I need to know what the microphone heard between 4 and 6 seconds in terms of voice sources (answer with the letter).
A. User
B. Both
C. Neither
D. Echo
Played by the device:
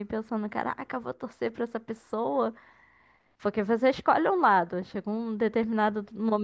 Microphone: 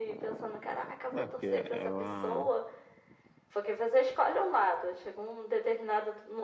D